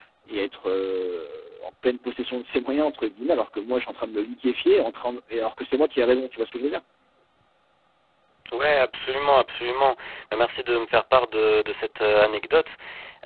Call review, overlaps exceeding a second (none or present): none